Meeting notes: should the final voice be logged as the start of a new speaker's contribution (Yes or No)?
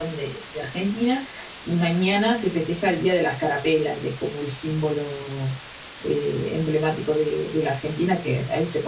No